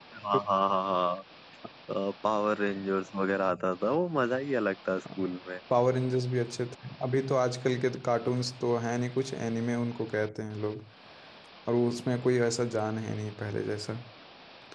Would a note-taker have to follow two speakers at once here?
No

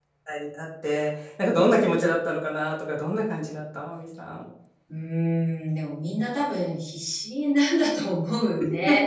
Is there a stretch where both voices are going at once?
No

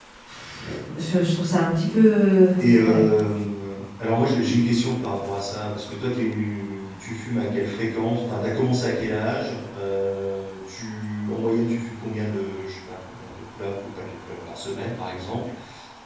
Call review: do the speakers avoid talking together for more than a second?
Yes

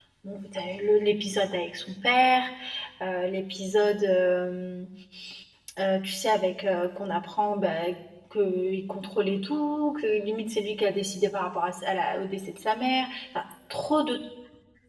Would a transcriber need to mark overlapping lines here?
No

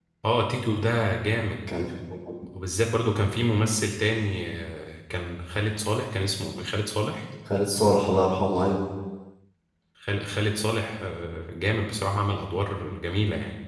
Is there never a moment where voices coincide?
Yes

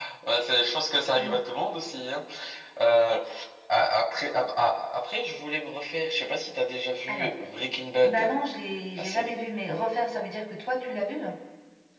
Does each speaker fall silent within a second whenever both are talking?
Yes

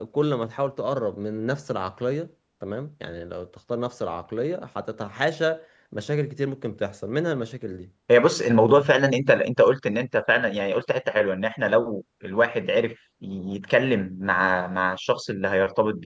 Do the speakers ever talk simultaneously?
No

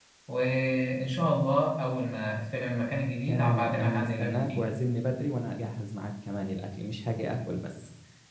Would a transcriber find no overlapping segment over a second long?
No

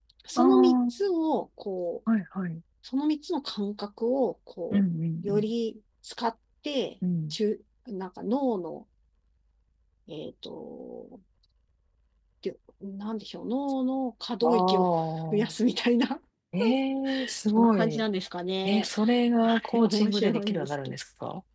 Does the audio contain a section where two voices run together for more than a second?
Yes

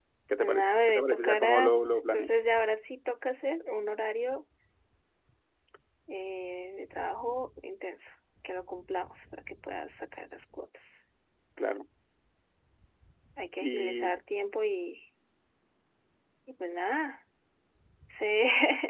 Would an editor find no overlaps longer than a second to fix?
No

